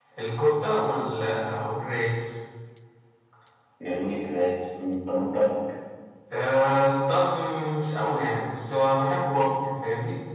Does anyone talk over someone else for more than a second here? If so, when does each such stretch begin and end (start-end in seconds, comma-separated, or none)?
none